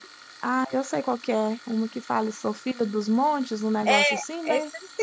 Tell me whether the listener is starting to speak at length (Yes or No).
Yes